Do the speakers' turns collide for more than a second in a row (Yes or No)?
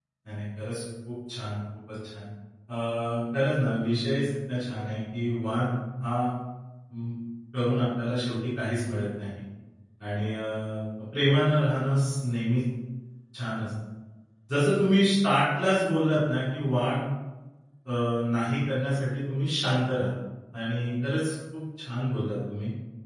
No